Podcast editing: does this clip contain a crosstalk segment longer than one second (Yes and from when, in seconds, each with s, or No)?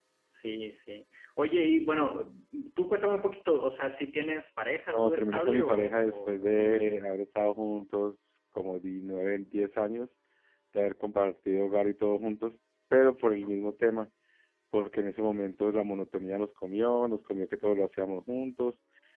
Yes, from 4.9 s